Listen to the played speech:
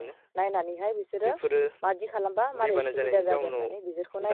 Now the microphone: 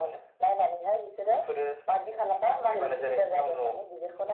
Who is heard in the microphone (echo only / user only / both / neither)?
echo only